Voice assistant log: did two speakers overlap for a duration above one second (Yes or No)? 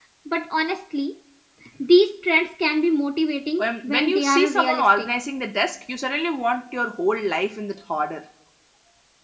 Yes